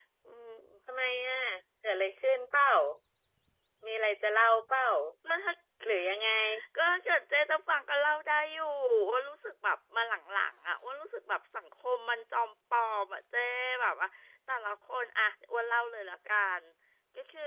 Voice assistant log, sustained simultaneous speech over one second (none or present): none